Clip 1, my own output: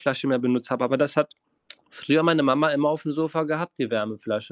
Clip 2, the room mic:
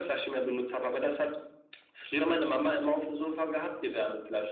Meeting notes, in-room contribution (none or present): none